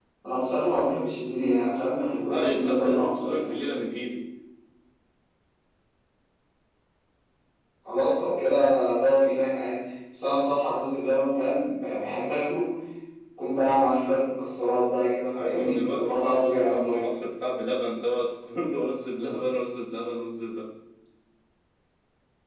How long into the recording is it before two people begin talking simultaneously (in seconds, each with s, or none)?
2.1 s